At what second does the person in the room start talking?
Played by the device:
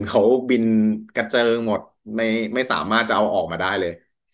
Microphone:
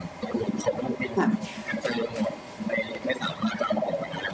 1 s

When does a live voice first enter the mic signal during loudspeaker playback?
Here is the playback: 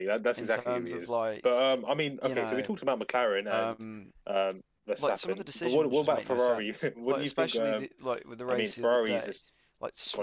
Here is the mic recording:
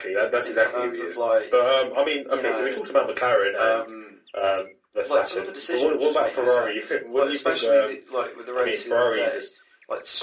none

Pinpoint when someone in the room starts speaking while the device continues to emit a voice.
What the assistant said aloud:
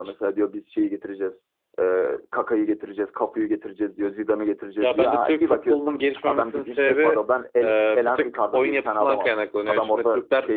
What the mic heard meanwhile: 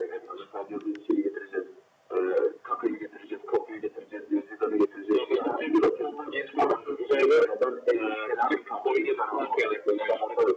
none

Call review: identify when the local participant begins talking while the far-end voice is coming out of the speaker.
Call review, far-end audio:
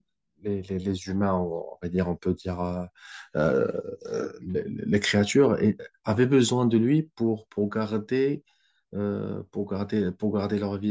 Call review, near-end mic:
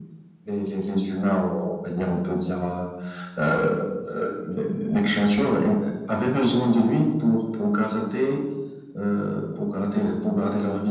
none

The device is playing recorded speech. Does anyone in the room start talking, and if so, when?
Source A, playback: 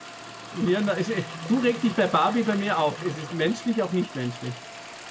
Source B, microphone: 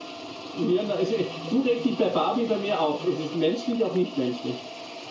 none

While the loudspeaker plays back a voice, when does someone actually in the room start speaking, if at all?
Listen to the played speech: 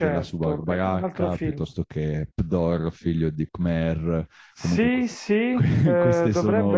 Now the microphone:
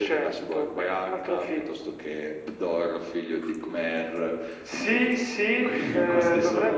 6 s

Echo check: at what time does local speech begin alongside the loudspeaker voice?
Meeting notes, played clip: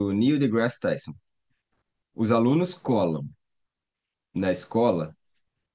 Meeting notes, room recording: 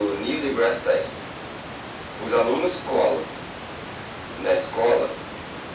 none

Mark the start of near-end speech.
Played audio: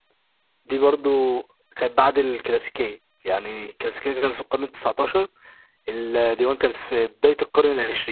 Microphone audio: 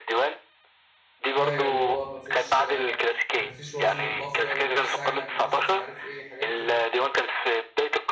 1 s

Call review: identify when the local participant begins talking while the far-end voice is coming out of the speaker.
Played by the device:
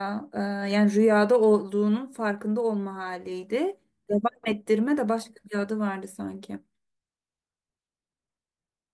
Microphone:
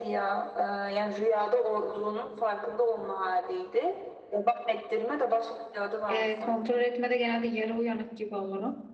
6 s

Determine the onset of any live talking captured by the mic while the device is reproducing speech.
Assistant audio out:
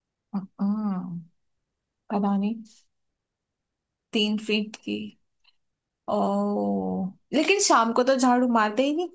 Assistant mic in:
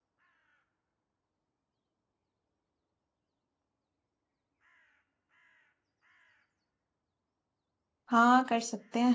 8 s

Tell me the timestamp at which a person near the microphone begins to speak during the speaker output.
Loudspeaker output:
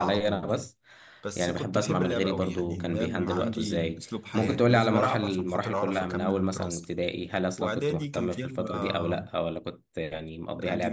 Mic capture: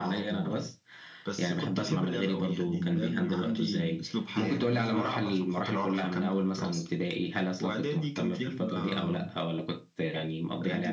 none

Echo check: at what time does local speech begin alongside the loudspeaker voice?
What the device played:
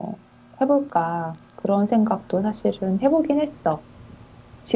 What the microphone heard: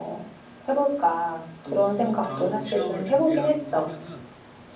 2 s

